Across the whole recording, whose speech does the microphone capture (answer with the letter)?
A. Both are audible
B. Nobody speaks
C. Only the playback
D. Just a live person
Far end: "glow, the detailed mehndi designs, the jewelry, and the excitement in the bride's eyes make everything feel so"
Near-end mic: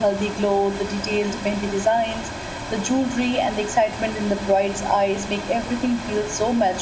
C